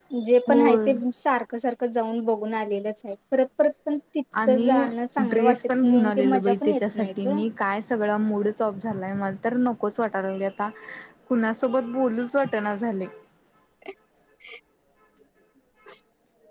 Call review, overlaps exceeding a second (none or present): present